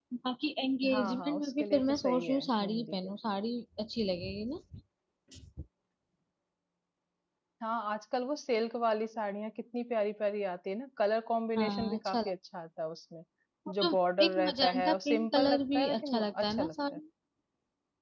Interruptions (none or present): present